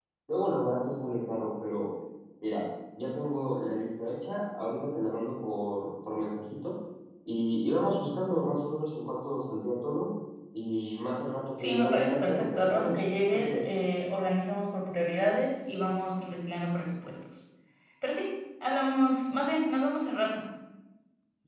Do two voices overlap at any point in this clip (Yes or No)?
Yes